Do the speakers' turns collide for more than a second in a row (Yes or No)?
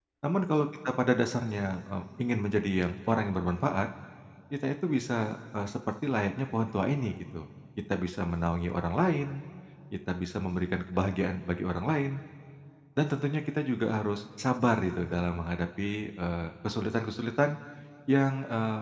No